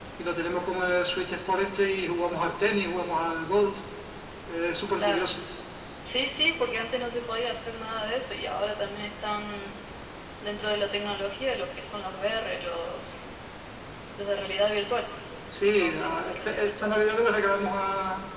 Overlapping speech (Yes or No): Yes